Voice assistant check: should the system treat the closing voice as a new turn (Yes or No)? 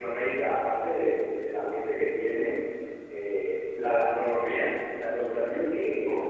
No